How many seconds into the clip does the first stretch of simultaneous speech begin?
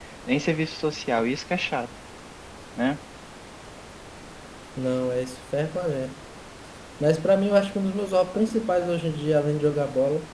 none

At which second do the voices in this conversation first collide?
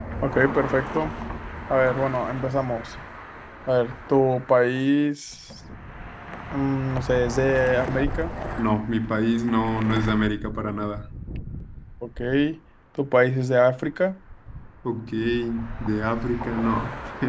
none

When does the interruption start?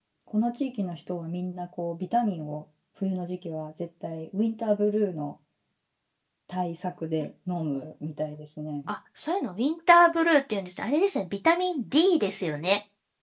none

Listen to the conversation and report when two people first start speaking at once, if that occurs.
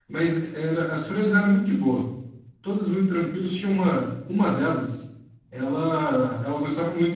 none

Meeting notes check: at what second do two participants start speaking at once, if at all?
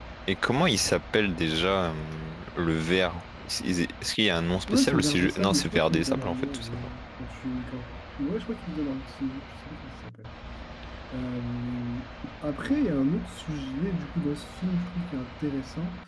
4.7 s

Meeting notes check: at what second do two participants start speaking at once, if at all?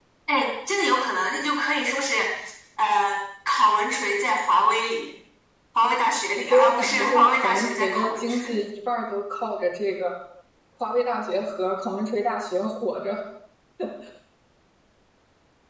6.4 s

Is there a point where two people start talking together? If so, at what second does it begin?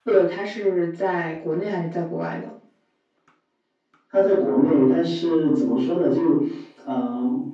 none

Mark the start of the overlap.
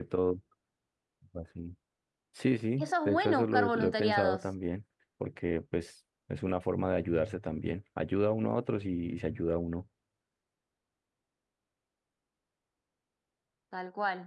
2.8 s

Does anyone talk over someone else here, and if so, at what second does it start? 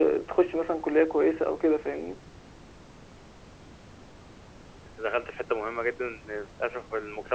none

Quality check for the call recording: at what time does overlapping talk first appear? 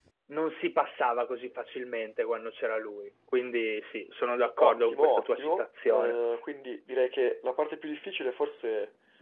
4.6 s

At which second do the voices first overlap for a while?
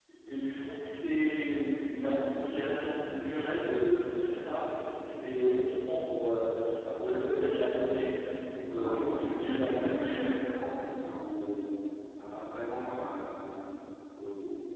8.8 s

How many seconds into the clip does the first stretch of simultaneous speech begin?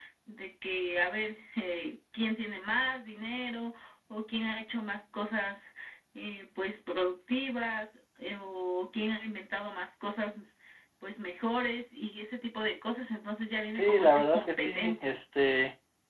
13.7 s

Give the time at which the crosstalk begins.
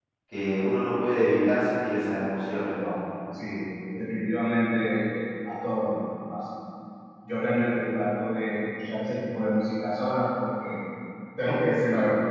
none

